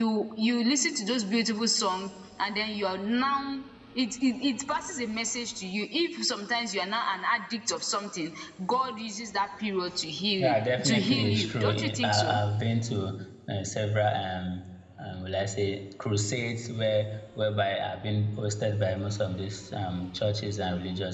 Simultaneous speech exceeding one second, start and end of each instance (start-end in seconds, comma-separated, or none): 10.4-12.4